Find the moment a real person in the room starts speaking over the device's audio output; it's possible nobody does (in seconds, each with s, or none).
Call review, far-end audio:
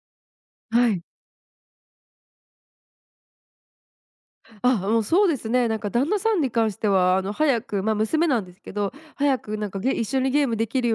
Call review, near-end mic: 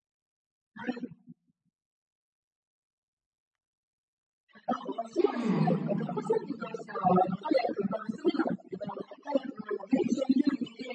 5.2 s